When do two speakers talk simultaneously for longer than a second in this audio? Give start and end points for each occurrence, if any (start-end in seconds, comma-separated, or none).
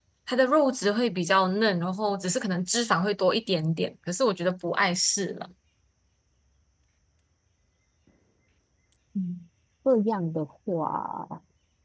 none